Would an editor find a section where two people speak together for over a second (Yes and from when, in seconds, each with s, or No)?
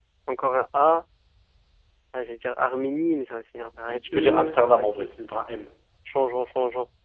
Yes, from 3.9 s